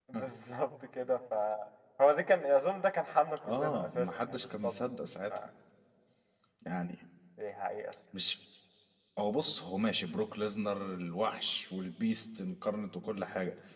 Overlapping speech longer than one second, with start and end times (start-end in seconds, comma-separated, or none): 3.5-4.7